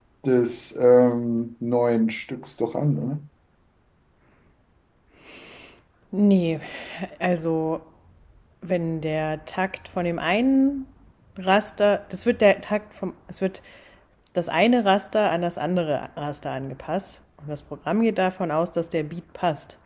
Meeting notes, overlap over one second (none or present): none